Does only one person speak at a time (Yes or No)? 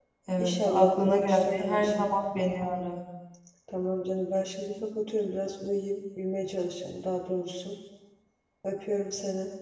No